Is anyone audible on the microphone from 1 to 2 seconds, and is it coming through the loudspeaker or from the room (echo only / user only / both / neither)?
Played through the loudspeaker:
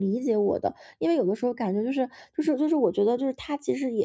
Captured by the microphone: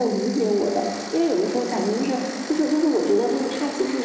echo only